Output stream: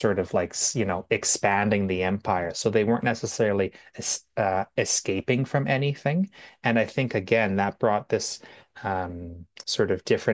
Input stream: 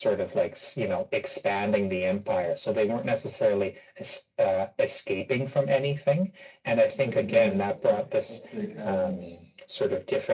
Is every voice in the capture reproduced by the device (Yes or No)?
No